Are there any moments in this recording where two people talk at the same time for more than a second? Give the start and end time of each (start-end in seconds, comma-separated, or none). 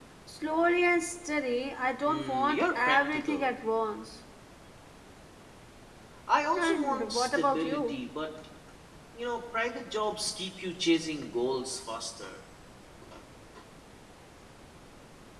2.0-3.5, 6.6-7.9